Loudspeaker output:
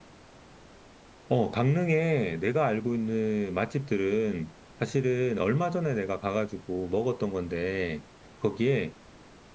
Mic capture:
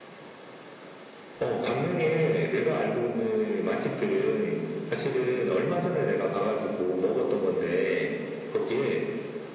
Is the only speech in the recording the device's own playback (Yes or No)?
Yes